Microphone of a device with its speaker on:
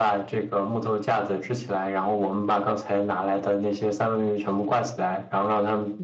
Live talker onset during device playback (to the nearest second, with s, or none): none